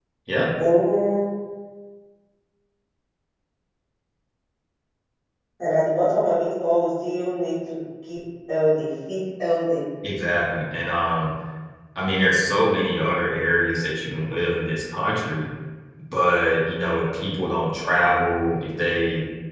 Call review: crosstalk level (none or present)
none